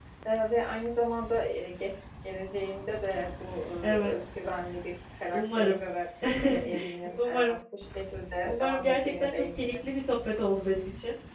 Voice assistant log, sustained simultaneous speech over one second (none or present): present